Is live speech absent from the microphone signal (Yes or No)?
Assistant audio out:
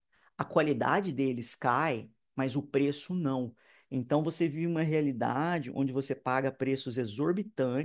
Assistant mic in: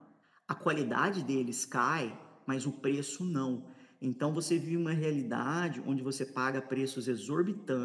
Yes